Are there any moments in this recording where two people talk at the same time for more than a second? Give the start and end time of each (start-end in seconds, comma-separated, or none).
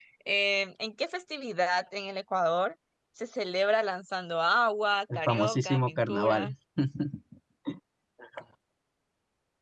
5.2-6.5